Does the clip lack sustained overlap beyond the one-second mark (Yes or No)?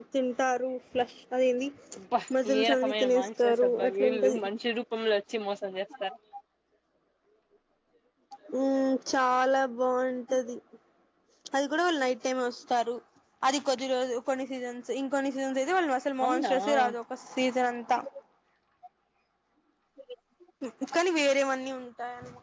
No